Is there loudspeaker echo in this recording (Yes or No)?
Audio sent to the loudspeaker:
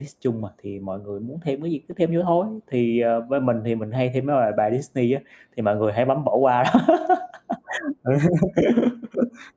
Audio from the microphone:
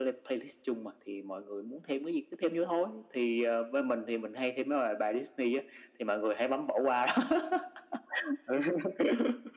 Yes